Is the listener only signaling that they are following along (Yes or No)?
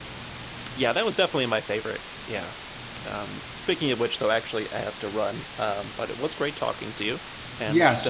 No